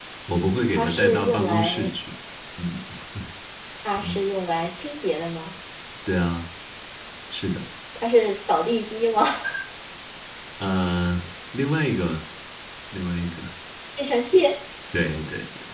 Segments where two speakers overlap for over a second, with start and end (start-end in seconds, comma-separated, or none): 0.7-1.9